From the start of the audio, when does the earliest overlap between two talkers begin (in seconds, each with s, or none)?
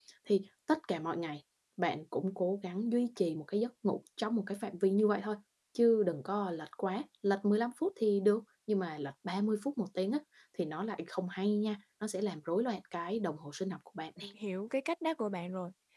none